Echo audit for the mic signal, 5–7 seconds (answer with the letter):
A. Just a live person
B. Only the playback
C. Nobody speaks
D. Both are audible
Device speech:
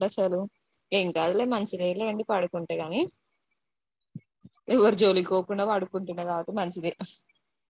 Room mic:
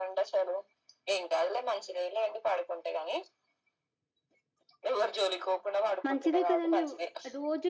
D